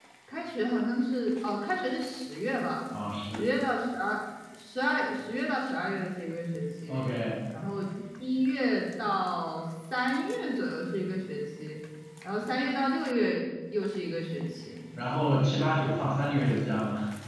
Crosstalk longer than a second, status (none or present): none